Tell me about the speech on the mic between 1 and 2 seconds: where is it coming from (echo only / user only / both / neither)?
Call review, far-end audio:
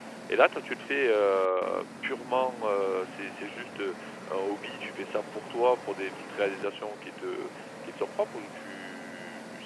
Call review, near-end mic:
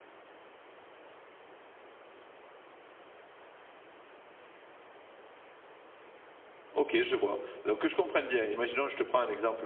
neither